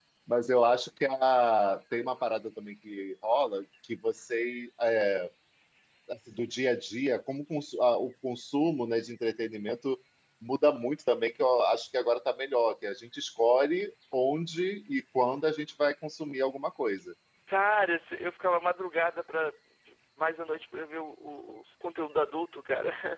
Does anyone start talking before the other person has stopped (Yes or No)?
No